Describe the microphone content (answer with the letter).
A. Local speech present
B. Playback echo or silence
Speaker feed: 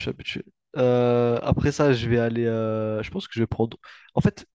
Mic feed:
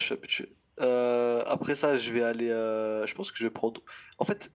B